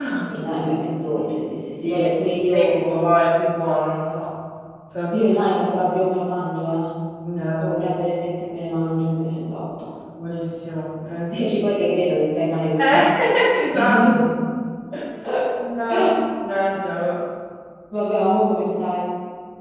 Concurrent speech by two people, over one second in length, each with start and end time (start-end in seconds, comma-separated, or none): 1.8-3.0